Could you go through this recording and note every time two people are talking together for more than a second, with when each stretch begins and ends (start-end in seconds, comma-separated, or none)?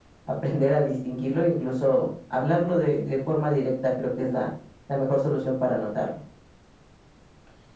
none